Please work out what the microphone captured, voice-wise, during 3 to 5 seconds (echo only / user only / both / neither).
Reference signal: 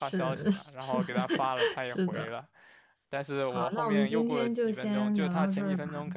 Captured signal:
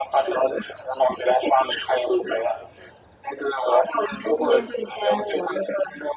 echo only